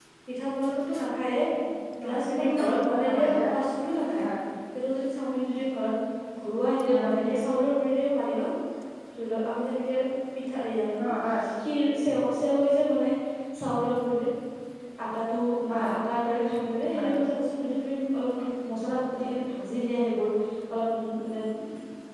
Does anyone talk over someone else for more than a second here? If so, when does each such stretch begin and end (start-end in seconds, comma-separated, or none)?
2.0-3.4